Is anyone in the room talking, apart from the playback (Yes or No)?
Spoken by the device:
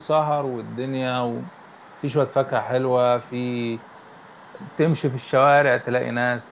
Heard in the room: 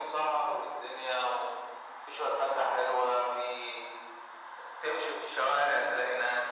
No